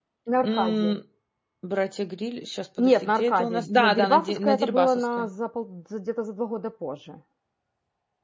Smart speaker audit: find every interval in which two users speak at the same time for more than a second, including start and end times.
2.8-5.3

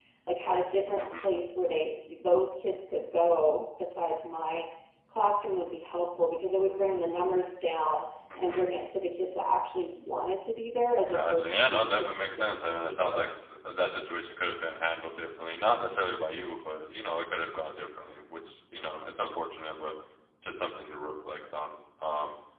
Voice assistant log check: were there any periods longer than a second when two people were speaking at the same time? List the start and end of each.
11.1-13.2

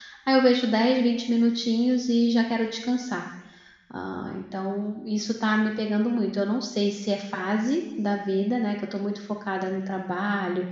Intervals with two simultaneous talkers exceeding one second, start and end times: none

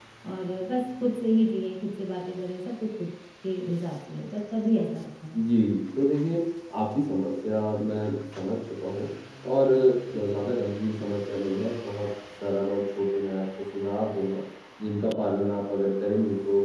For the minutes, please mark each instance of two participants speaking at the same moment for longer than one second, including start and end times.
none

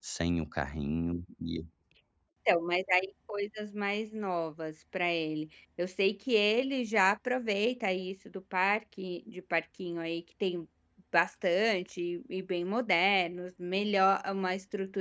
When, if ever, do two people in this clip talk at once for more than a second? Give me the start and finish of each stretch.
none

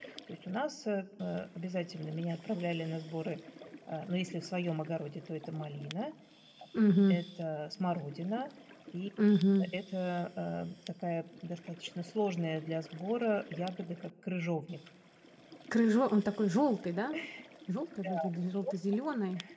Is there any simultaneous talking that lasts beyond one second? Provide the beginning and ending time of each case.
none

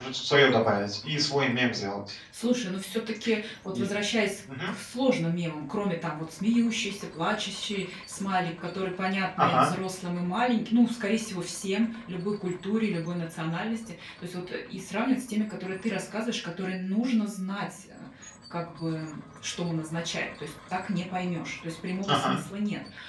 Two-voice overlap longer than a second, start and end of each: none

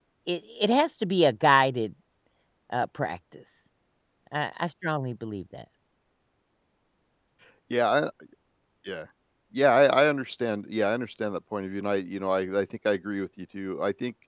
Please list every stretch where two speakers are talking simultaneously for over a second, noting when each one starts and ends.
none

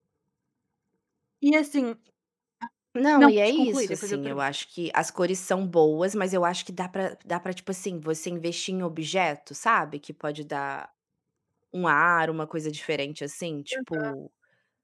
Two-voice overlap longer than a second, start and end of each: 3.2-4.4

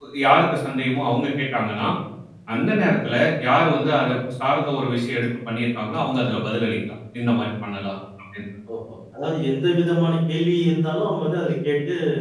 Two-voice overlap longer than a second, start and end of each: none

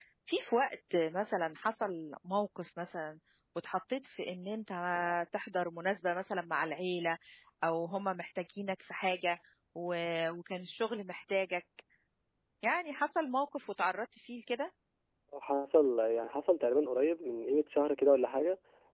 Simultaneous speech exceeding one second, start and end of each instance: none

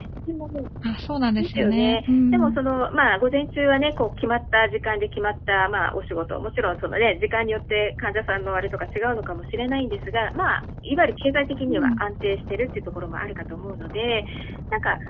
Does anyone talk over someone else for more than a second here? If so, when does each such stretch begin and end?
1.4-2.6

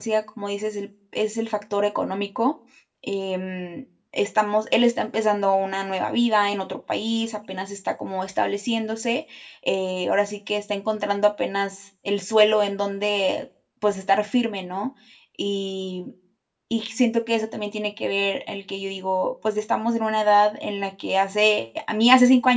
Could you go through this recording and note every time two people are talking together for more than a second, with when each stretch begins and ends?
none

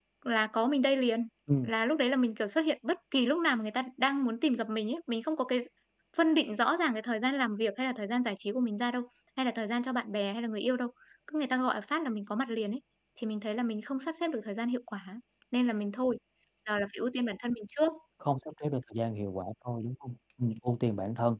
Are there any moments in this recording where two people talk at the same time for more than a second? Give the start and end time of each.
none

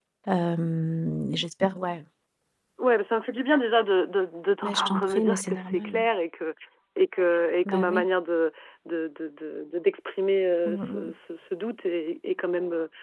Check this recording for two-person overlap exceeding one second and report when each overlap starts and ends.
4.6-6.0

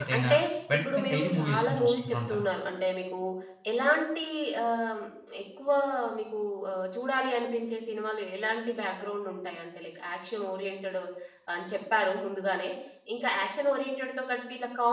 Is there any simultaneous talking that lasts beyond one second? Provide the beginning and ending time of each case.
0.8-2.4

